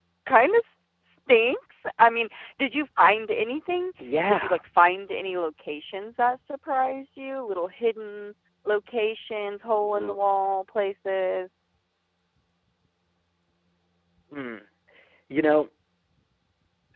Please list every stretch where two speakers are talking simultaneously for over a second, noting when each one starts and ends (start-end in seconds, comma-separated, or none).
none